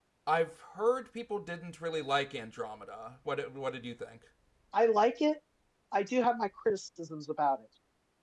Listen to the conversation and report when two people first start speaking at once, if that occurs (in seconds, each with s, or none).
none